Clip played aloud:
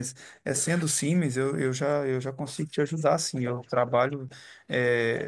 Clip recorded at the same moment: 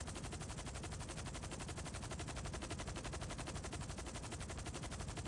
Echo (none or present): none